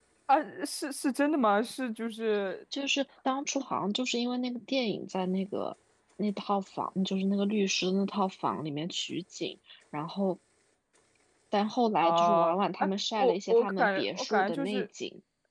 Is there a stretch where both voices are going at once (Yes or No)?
Yes